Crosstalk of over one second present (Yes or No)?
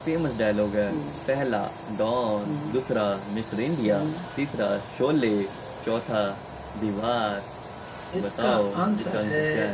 Yes